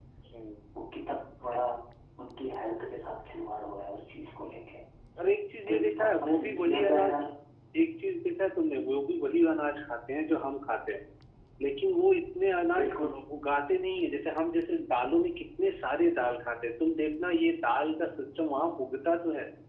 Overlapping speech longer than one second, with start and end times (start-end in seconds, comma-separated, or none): 5.7-7.1